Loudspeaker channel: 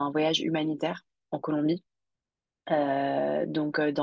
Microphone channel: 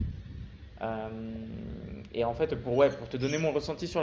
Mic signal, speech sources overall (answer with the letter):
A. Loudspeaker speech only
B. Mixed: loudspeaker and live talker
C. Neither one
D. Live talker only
D